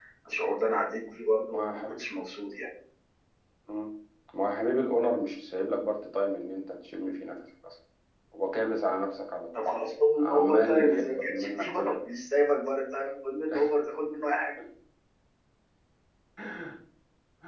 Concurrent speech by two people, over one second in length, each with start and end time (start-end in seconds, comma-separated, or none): 10.2-12.0